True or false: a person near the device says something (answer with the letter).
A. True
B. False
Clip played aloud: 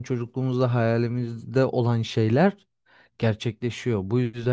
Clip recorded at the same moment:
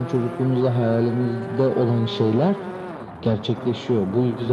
B